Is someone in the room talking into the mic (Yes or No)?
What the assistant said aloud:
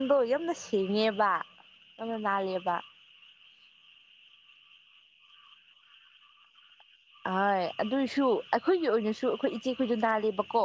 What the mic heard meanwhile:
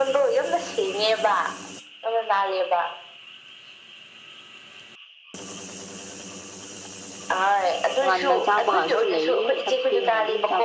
Yes